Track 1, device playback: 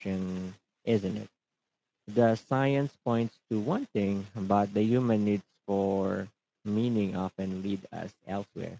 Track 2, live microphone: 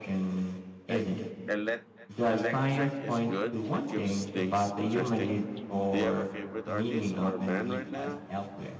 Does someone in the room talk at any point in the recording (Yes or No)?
Yes